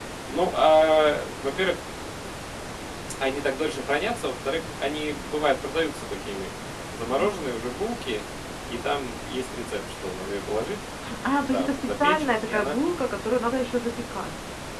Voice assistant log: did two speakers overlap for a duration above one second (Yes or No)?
Yes